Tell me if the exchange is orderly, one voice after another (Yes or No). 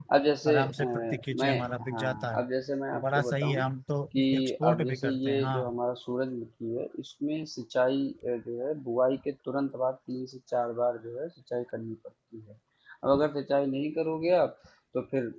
No